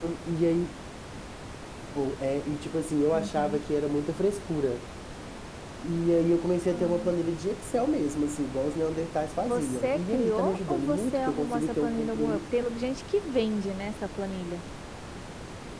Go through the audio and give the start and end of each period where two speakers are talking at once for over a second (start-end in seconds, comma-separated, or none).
9.4-12.4